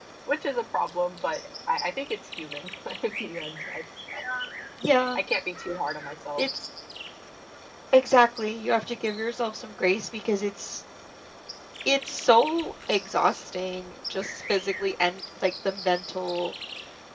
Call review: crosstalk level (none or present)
none